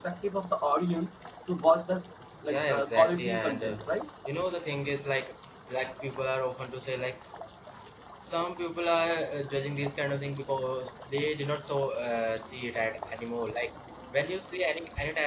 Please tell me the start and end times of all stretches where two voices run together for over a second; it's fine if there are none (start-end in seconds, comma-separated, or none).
2.5-3.8